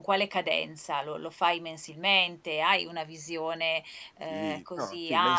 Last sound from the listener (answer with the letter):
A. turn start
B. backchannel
A